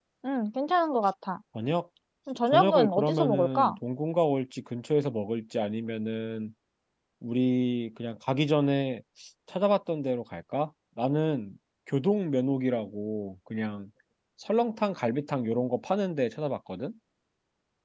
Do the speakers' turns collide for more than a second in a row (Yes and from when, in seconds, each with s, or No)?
Yes, from 2.5 s